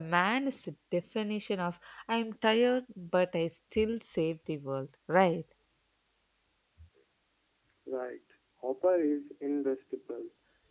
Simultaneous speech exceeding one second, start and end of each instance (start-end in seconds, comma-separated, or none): none